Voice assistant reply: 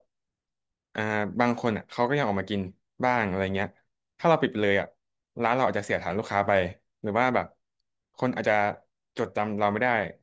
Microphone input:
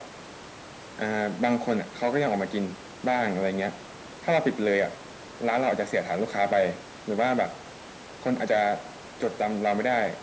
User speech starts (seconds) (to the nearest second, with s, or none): none